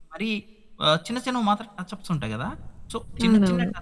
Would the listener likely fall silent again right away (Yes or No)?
Yes